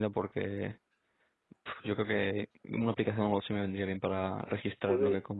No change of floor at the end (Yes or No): No